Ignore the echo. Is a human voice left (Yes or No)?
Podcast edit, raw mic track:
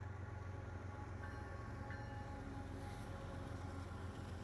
No